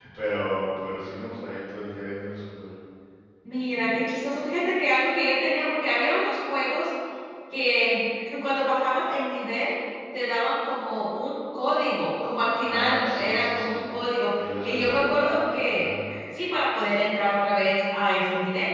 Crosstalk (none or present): present